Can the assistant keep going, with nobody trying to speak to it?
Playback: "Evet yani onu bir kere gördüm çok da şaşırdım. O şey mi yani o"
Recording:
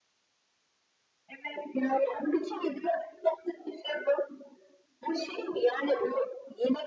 Yes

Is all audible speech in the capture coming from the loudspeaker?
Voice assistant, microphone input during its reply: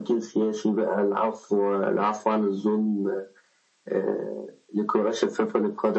Yes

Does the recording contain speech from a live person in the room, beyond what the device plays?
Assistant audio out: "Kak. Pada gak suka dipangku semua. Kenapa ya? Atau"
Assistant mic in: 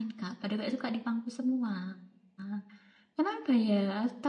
No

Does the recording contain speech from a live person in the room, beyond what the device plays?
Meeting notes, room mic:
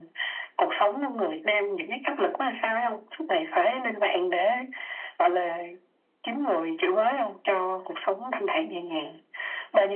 No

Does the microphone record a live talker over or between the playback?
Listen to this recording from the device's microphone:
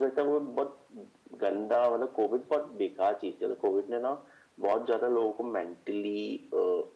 No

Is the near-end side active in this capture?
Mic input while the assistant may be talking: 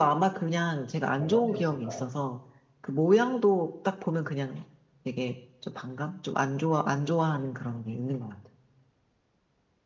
Yes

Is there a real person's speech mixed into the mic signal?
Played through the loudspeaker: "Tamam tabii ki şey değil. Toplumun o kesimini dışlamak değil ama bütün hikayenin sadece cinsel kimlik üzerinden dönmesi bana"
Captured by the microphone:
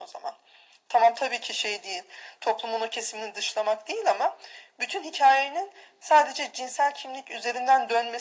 No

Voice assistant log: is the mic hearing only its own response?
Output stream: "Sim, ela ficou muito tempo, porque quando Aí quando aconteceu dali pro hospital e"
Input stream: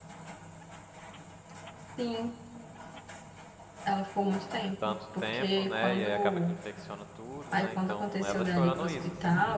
No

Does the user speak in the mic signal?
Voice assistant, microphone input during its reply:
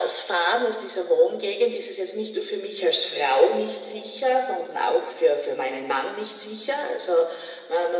No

